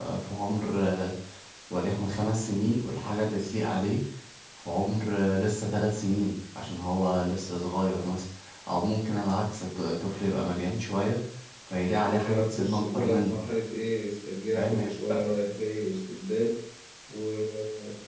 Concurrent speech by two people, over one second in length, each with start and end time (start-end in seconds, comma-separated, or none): 12.0-13.4